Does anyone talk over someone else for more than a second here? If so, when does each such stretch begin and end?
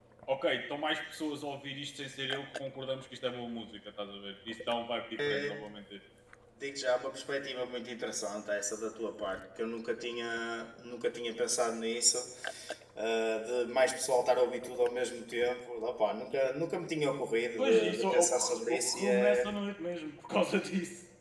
17.6-19.5

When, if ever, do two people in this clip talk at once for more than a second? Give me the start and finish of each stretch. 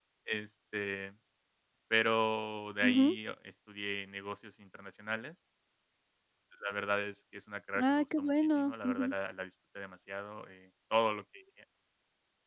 7.8-9.1

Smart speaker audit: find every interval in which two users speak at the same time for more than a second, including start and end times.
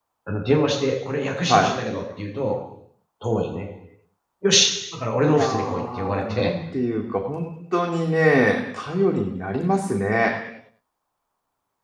5.3-6.5

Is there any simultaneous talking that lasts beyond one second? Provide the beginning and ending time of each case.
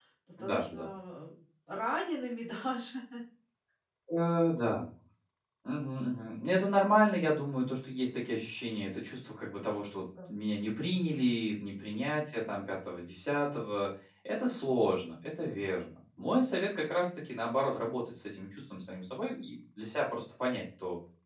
none

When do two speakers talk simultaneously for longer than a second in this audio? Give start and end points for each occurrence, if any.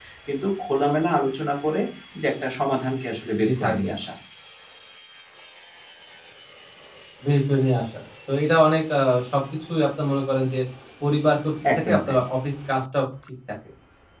none

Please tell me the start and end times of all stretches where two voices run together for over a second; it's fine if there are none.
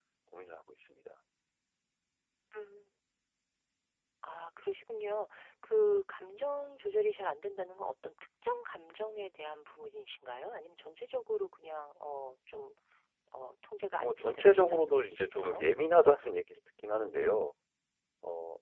14.0-15.6

